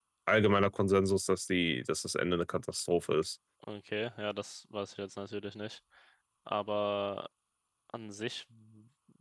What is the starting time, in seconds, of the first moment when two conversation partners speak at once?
none

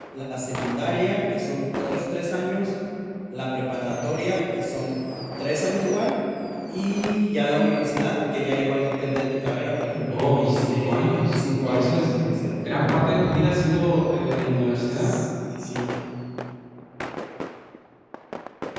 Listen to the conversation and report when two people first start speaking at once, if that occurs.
10 s

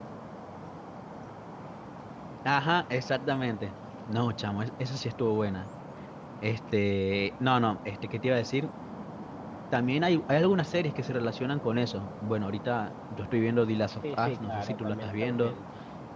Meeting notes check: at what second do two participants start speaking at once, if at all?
14 s

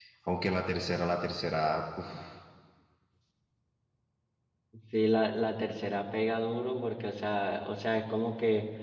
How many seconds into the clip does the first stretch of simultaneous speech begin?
none

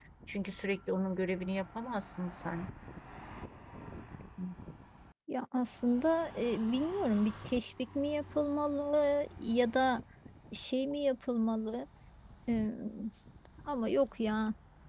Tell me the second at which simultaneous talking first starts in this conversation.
none

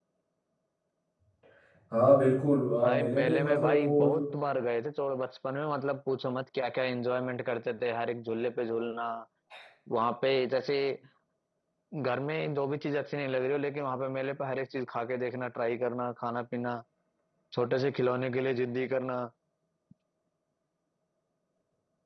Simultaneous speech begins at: 3 s

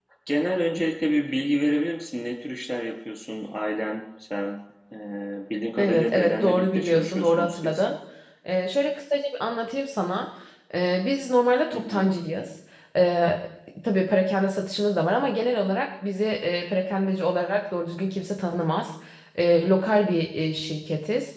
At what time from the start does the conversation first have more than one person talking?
6 s

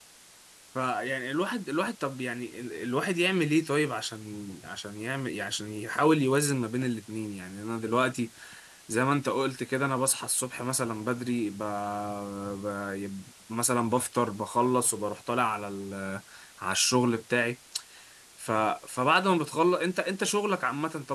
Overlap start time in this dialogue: none

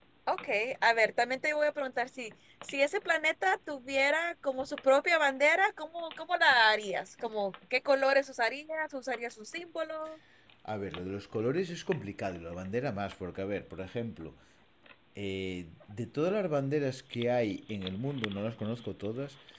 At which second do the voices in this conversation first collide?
none

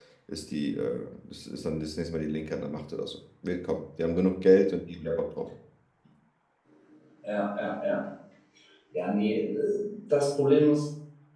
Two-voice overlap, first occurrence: none

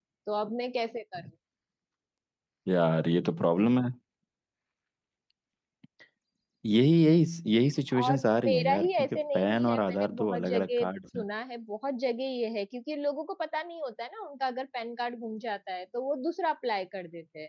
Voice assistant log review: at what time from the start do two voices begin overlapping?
8 s

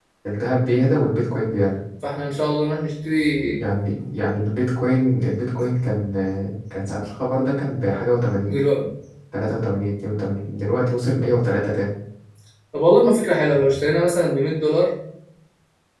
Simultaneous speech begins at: none

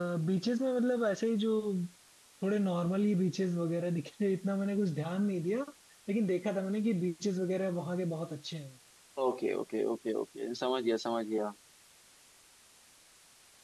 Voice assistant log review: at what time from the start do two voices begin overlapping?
none

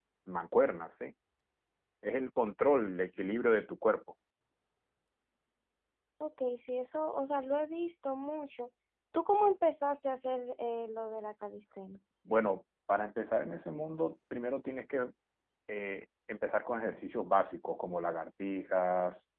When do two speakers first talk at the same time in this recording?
none

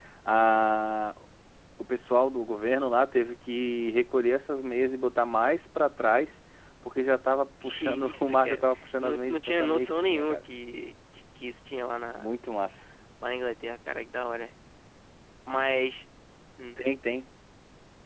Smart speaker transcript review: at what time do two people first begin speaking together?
8 s

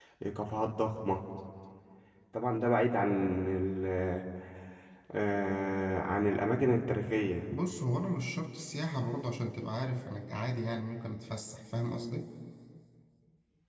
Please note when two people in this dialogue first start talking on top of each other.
none

